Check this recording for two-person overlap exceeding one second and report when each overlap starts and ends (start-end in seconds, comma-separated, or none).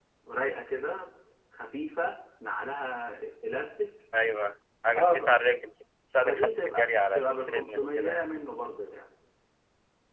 6.2-8.2